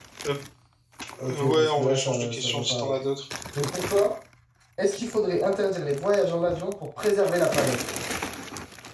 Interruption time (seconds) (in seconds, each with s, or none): 1.3 s